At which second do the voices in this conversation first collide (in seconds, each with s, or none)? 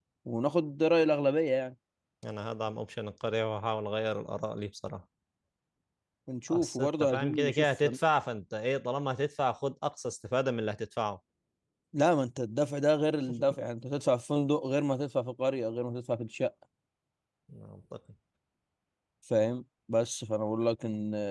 6.5 s